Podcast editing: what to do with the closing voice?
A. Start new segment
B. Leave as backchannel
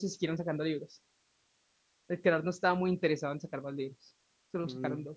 A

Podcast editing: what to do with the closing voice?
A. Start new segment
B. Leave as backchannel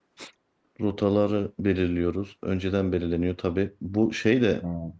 B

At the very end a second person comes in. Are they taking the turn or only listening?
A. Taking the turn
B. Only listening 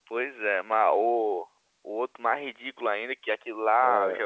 B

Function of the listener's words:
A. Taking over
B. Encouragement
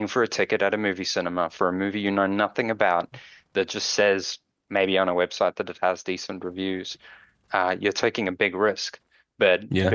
B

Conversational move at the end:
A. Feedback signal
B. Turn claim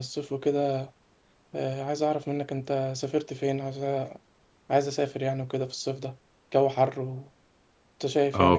B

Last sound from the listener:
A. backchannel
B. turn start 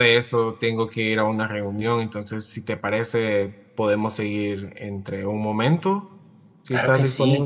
B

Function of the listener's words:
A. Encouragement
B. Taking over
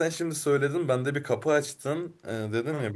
A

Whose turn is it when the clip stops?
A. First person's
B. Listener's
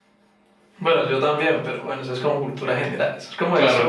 A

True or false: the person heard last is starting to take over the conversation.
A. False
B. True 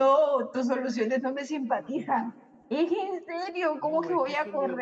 B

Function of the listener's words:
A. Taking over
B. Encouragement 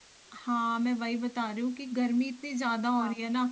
B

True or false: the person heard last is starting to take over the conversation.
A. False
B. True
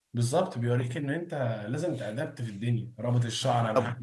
A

